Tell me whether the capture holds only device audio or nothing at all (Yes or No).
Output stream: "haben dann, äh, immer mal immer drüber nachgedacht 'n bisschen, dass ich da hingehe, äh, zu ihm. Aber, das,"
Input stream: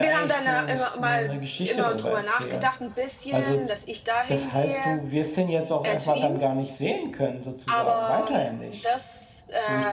No